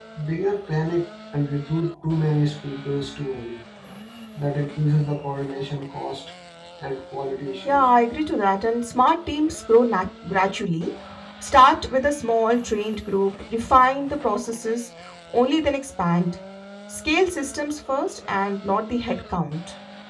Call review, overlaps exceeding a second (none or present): none